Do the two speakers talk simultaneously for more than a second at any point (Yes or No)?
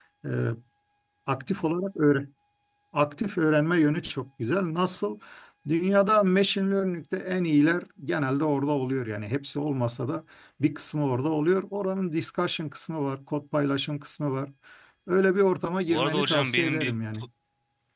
Yes